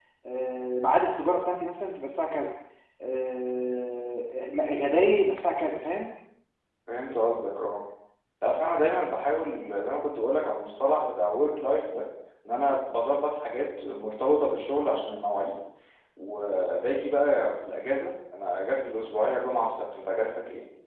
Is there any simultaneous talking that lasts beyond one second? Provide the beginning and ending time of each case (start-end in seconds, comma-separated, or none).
none